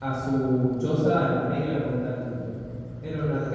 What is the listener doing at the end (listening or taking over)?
listening